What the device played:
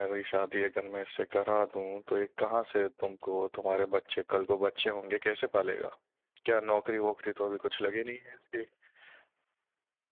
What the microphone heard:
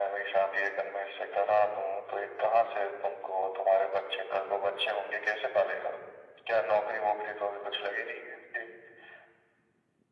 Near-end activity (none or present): none